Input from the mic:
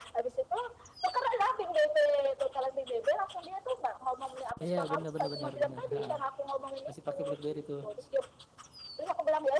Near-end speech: present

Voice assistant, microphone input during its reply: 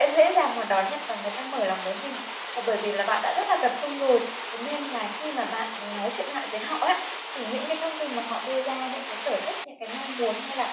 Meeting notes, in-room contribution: none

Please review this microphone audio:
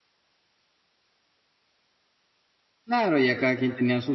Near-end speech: present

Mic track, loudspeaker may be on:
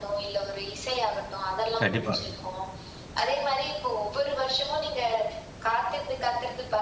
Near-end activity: present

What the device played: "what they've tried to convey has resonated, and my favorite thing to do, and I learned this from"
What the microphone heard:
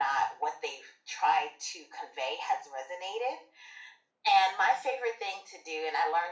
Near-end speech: none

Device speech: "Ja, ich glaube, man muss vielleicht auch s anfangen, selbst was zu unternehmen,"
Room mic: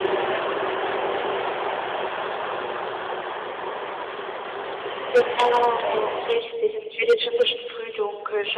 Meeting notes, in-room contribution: present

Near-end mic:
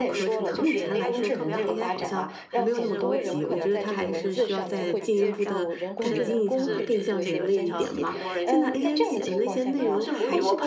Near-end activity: present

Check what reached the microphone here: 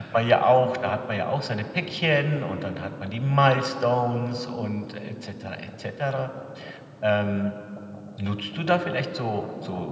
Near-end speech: none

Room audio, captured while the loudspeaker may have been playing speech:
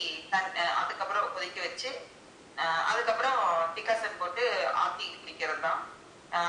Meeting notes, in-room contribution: none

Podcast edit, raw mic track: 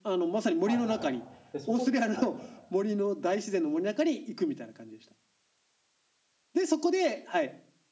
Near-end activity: present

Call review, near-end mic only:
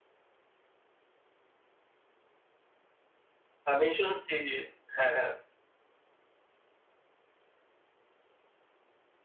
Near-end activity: present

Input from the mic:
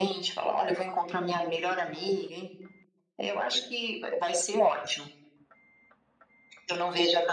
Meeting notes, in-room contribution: none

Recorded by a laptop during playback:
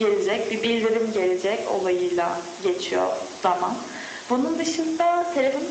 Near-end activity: none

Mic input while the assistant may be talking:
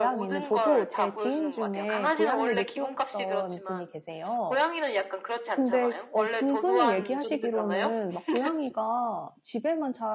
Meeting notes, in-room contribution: present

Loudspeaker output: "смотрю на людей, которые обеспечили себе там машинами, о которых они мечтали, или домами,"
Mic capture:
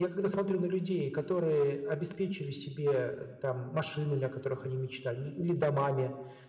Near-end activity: none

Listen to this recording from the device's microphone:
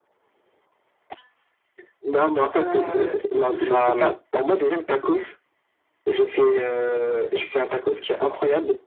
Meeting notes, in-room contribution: present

